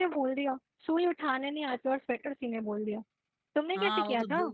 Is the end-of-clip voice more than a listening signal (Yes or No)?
Yes